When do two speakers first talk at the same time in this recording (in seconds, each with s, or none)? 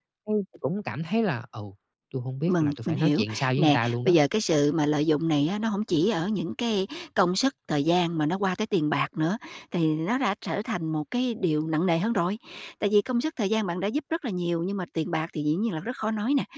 2.5 s